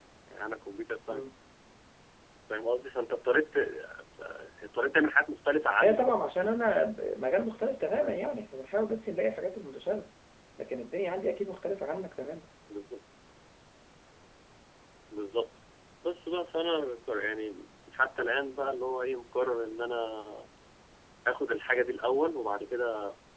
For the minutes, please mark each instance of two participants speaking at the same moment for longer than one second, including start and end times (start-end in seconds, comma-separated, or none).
none